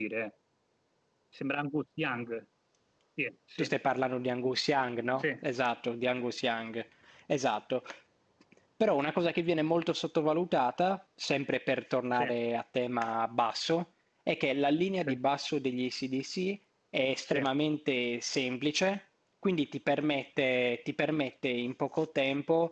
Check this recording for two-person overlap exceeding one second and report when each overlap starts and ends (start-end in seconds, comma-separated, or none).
none